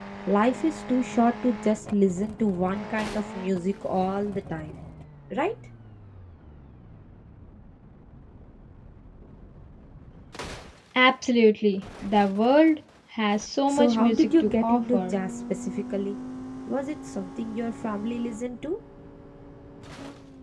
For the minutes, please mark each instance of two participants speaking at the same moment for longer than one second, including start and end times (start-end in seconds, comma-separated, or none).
13.7-15.2